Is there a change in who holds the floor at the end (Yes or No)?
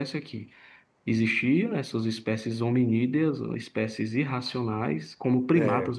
No